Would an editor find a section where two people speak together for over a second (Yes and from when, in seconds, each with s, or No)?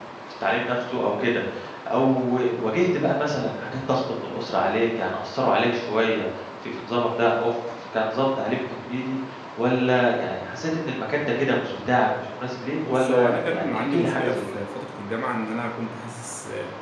Yes, from 12.8 s